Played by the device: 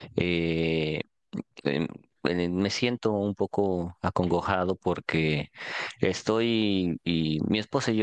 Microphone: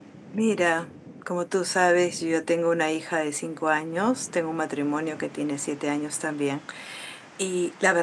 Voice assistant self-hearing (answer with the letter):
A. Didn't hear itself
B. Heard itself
A